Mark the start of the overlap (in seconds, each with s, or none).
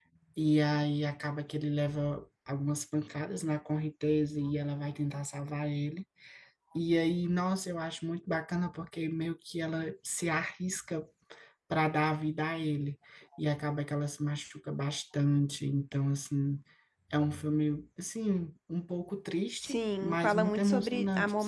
19.6 s